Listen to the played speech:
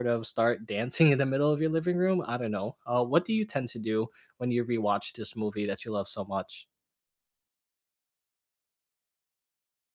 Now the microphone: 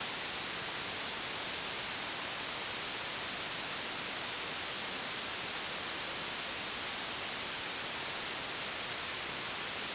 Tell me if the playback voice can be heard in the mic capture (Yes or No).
No